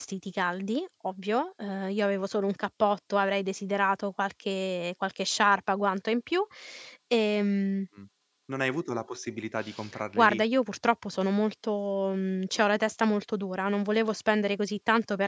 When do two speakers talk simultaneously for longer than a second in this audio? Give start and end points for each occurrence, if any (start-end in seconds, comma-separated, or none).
none